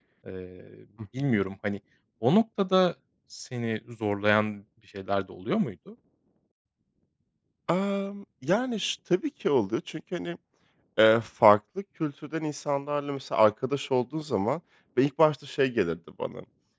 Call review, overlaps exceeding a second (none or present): none